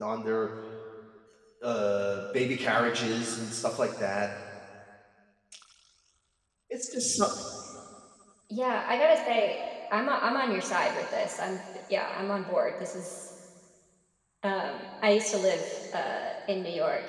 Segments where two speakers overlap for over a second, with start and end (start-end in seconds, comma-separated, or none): none